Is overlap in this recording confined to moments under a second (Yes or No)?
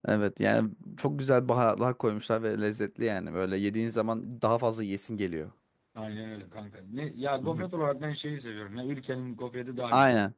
Yes